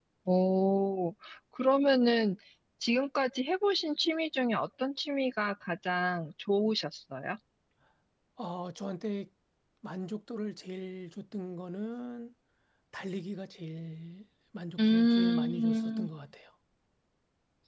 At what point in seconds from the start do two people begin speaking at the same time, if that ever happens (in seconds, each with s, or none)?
14.8 s